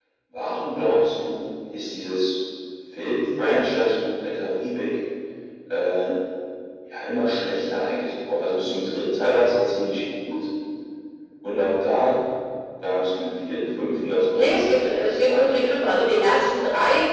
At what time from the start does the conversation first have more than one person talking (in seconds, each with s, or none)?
14.3 s